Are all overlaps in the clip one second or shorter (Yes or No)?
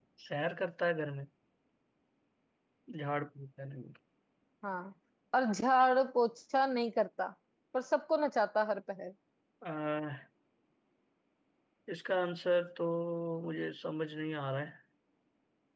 Yes